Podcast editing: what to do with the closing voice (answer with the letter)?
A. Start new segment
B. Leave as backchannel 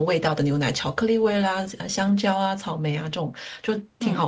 B